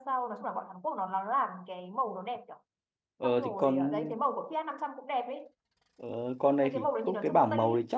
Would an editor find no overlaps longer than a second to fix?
No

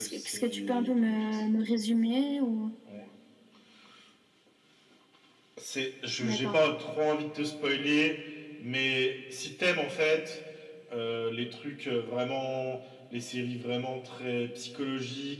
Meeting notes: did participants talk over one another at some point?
Yes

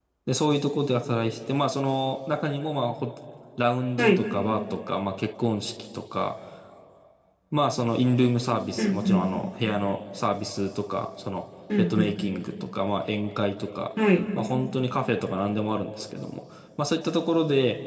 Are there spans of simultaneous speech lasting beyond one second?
No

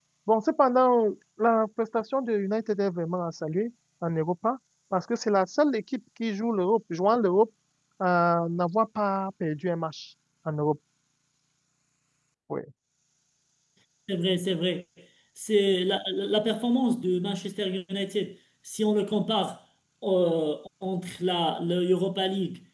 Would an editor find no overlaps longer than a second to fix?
Yes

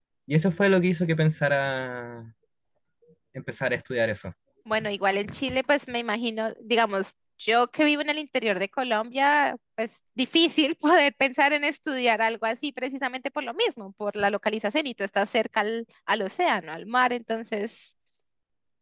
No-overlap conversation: Yes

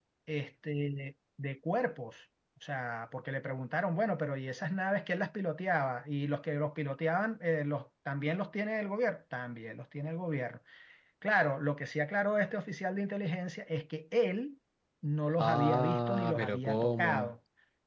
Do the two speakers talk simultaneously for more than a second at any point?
Yes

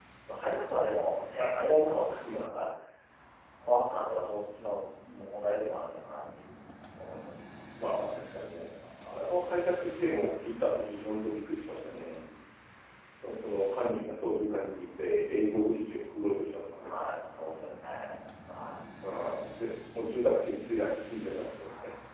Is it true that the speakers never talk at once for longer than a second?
Yes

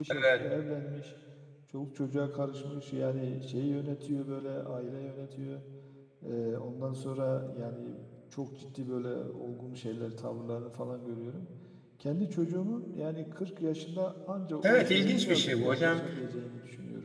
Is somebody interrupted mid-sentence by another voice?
Yes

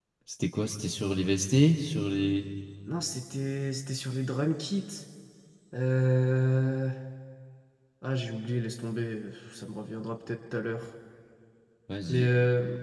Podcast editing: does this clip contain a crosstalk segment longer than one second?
No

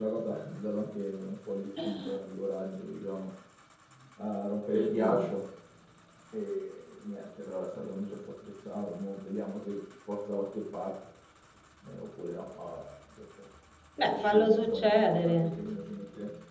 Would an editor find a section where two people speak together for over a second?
Yes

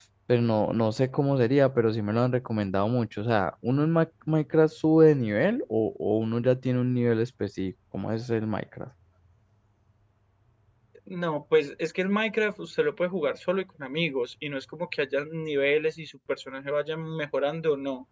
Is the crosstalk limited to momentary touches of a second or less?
Yes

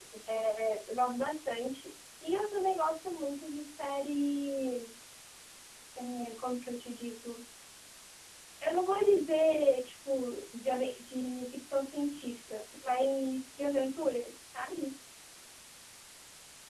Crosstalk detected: No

